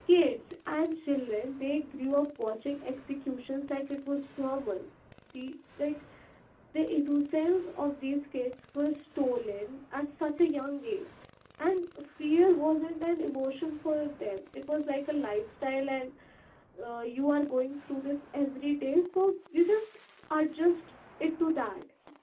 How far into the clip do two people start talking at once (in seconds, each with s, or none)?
none